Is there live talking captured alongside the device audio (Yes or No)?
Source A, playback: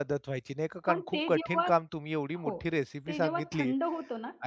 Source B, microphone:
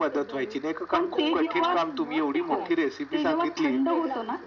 Yes